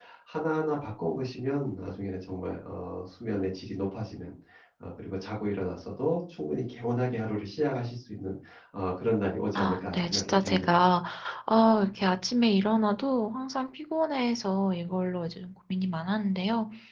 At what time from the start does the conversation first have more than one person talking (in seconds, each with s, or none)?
9.6 s